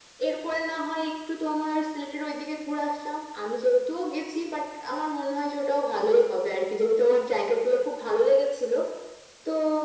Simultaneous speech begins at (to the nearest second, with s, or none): none